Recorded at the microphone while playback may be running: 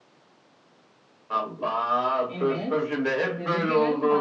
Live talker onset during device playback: 2.3 s

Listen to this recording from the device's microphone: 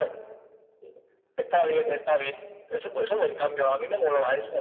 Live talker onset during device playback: none

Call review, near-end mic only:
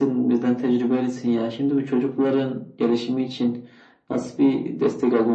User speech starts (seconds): none

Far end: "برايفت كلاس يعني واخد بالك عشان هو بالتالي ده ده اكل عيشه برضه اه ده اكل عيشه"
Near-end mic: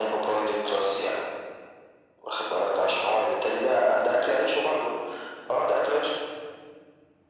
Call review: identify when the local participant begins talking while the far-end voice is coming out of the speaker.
none

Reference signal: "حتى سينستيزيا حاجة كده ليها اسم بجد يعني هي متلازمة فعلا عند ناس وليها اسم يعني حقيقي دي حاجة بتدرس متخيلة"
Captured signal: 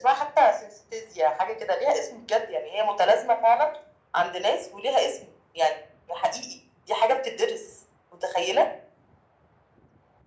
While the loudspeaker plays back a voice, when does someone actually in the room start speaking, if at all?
none

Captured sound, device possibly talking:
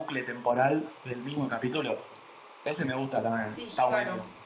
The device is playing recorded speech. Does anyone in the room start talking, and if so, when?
3.5 s

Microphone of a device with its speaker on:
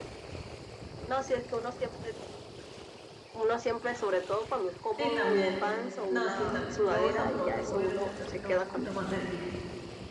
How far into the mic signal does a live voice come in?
5.0 s

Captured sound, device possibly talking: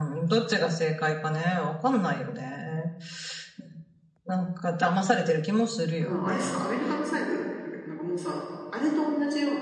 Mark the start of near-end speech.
6.0 s

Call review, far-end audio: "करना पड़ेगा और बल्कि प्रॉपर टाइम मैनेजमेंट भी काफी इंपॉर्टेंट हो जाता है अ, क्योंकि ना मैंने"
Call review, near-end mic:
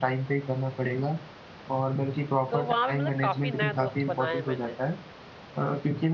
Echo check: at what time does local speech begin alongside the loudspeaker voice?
2.5 s

